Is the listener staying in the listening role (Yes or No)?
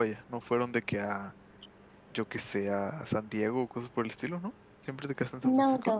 No